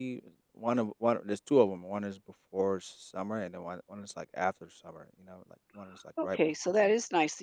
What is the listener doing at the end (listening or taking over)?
taking over